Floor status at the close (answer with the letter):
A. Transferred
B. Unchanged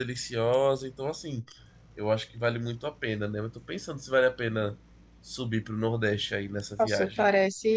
A